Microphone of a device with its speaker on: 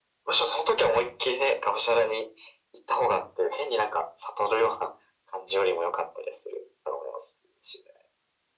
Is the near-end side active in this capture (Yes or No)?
No